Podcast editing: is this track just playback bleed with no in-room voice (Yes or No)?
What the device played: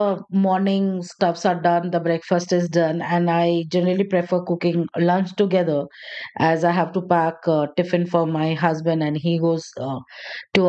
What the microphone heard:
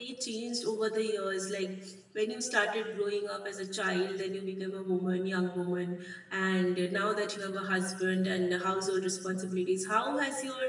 No